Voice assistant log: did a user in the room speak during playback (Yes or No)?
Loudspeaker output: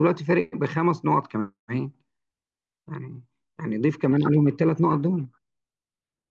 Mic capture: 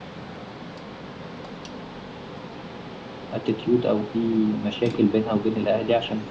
Yes